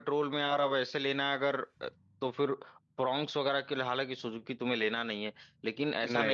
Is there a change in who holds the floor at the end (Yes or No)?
No